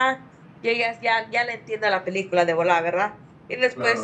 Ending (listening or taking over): listening